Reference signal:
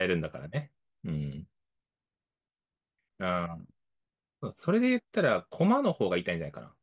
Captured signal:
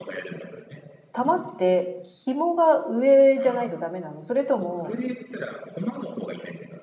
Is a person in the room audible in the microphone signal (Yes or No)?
Yes